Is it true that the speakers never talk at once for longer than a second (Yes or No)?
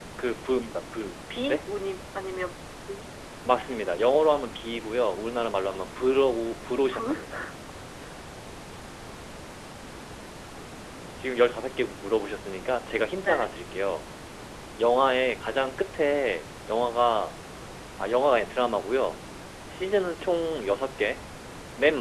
Yes